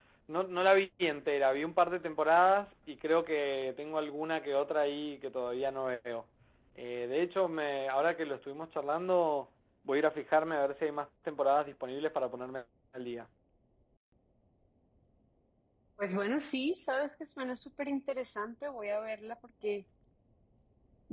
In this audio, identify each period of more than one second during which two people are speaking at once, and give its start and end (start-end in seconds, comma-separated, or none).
none